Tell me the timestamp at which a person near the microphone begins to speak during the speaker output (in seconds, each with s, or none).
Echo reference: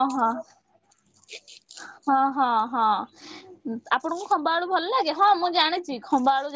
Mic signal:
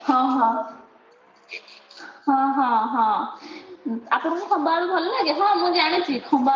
none